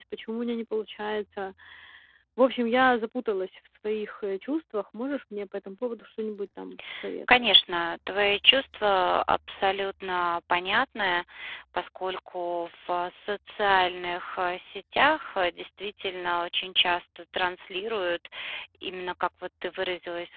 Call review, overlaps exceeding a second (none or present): none